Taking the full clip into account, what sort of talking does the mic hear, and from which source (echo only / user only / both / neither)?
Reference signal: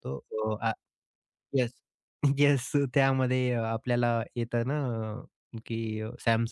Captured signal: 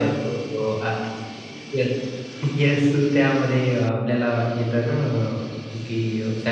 echo only